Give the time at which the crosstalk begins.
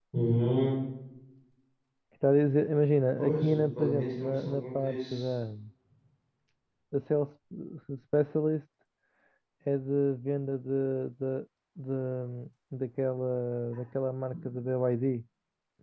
3.2 s

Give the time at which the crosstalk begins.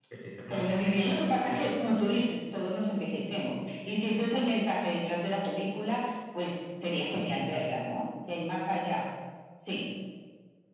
0.5 s

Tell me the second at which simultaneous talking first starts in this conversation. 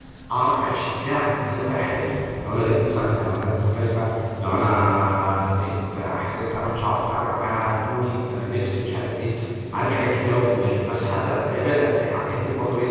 none

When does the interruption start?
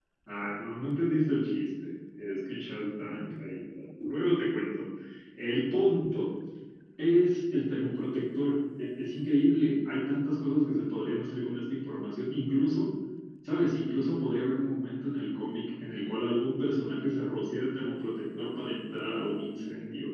none

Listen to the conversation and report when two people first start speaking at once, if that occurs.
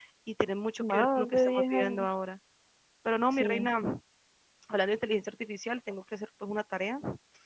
0.8 s

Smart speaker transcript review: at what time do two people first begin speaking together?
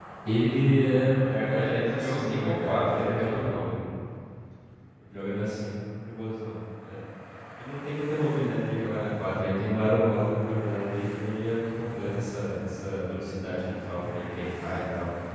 0.9 s

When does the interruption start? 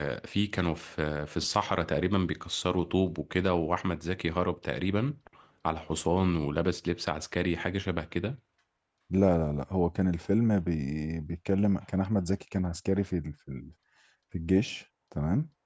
none

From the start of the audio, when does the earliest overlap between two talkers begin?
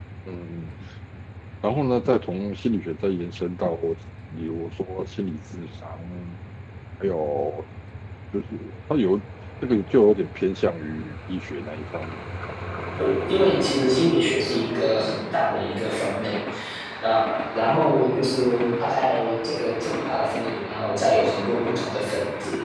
none

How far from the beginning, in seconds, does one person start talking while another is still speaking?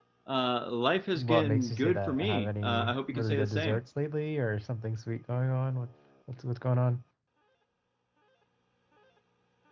1.1 s

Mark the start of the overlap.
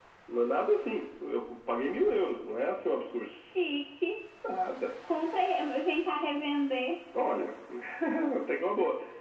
none

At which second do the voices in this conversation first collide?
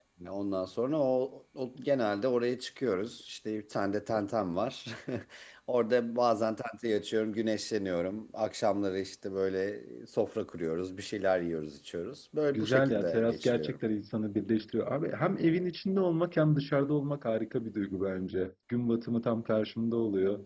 12.5 s

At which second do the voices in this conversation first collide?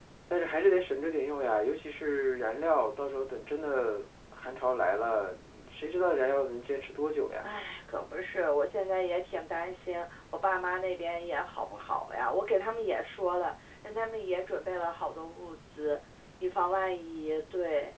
none

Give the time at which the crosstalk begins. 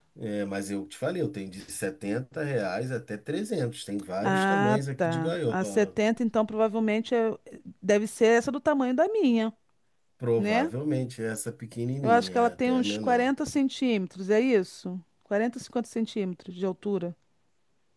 4.2 s

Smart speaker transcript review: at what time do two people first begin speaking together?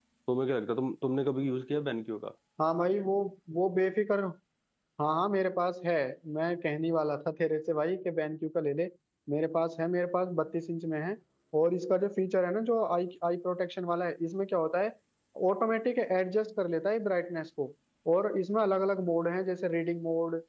none

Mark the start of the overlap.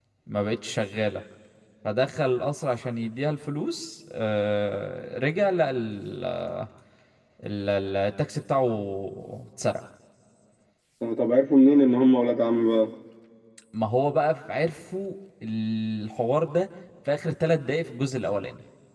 none

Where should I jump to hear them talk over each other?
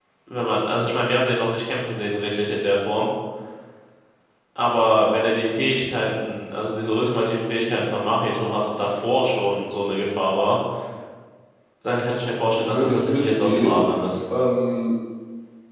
12.6 s

